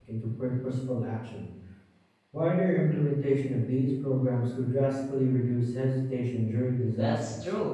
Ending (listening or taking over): taking over